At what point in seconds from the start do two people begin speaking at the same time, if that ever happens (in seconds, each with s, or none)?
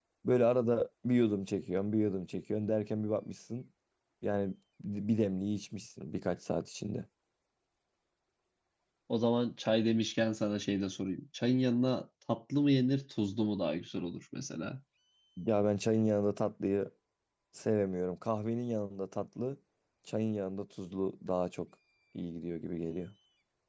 none